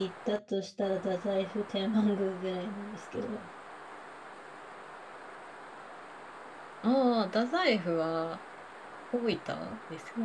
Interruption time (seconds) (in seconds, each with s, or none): none